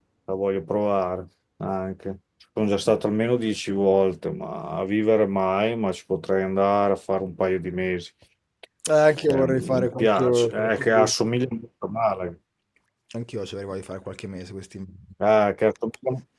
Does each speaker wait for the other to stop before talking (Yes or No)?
No